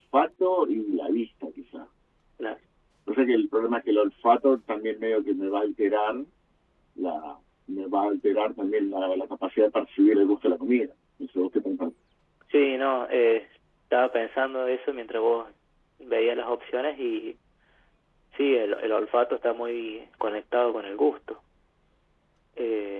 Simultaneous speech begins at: none

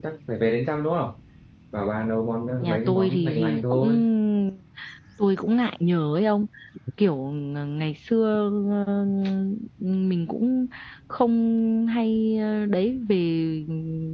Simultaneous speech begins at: 2.6 s

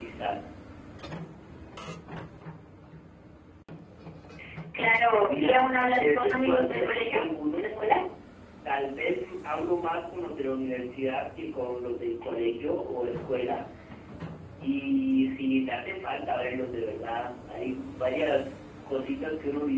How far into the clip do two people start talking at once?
5.2 s

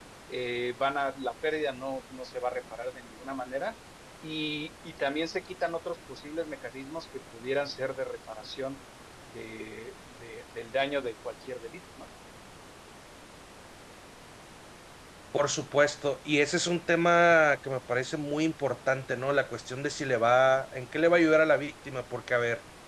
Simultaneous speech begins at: none

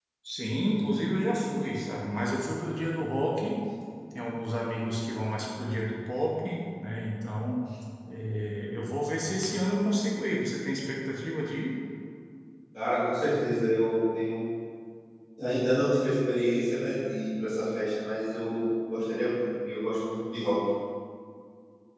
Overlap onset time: none

